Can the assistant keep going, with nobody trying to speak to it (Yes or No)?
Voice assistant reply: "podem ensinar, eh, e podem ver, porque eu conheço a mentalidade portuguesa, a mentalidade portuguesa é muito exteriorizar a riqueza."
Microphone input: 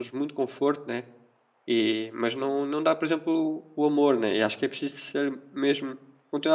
No